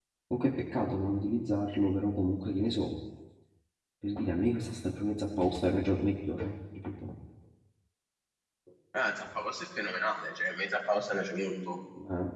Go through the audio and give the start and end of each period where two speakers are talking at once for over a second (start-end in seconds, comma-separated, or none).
none